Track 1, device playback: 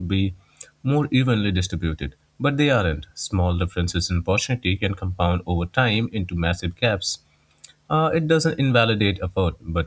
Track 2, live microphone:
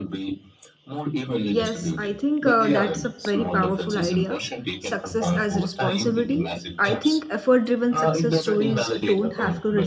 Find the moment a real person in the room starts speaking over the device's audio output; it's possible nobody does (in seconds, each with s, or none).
1.4 s